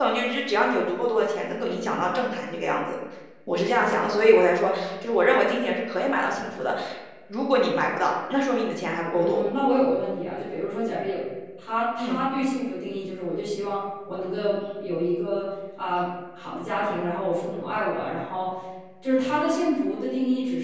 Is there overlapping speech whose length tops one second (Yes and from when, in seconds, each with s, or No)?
No